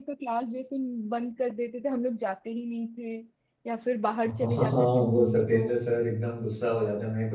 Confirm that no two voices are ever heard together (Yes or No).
No